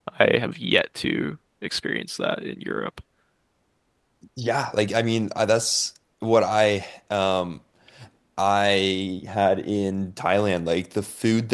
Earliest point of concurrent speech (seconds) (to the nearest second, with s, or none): none